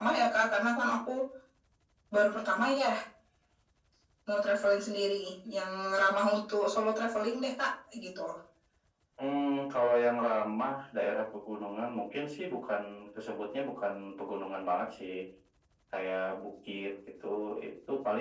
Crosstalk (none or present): none